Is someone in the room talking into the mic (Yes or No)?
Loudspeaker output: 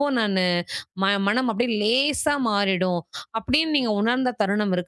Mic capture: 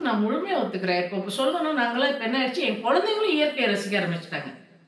Yes